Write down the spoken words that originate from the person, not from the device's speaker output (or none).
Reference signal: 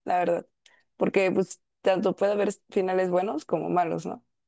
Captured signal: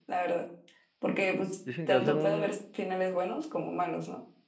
Dicen que va a ser un,